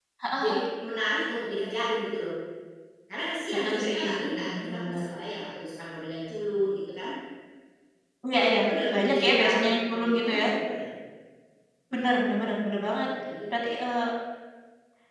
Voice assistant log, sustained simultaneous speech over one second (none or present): present